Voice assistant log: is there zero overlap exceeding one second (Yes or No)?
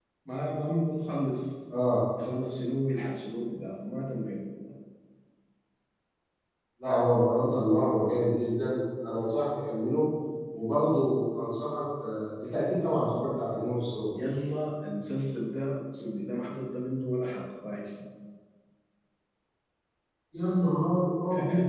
Yes